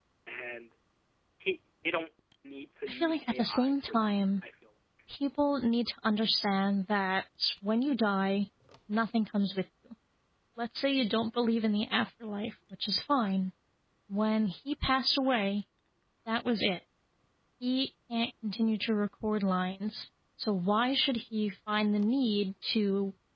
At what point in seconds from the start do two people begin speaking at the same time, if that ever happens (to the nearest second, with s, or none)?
3 s